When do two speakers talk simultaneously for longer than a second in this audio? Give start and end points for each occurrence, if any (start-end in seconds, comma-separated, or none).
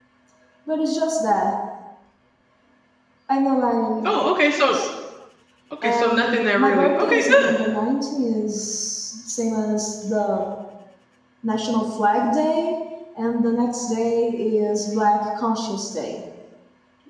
5.8-7.5